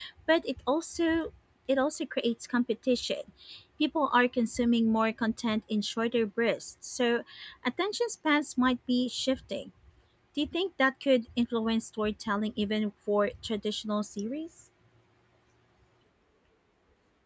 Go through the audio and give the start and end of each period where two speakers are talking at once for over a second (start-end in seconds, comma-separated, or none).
none